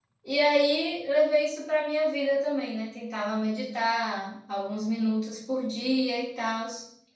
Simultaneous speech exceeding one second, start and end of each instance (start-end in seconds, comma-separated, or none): none